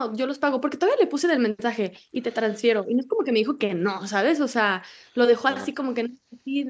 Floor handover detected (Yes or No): No